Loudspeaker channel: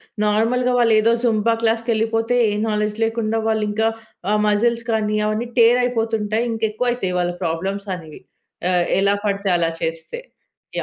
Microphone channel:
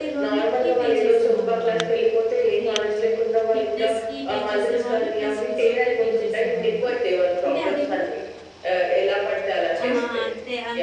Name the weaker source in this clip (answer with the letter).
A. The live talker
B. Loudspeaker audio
A